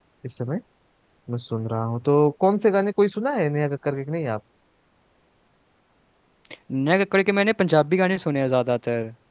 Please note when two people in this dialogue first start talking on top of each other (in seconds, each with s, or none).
none